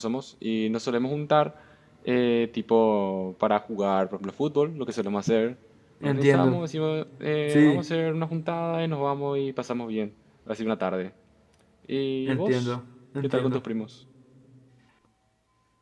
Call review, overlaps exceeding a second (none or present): none